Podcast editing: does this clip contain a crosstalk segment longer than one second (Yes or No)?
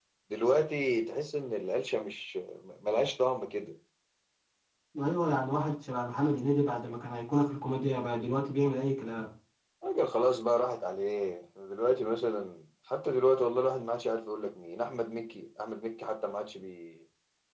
No